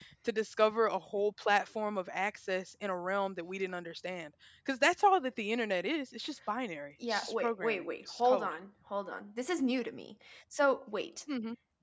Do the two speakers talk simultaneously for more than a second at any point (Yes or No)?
Yes